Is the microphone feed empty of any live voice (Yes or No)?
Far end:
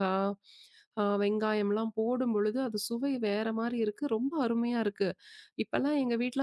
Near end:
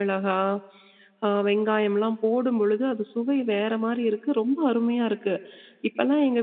Yes